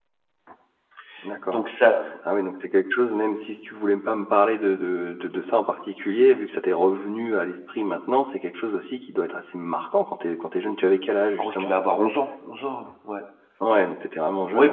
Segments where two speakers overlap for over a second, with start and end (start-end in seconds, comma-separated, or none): none